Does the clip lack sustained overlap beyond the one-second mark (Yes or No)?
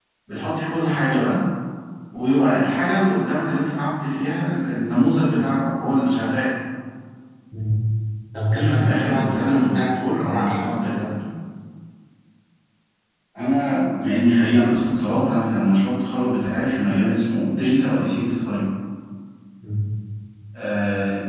No